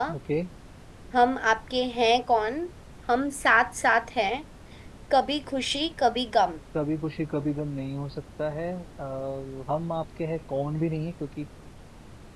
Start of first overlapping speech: none

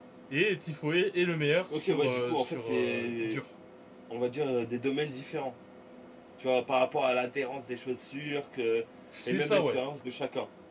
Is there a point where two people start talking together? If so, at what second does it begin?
2 s

